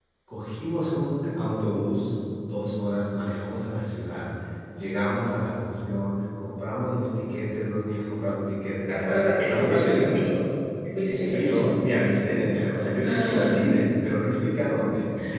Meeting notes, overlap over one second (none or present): present